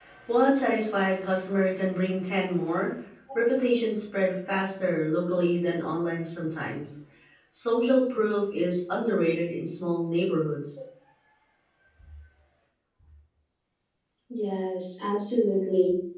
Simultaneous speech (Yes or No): No